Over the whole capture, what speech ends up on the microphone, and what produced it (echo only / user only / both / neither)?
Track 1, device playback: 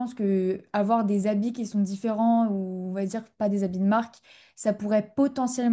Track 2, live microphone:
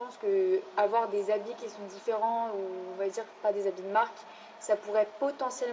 echo only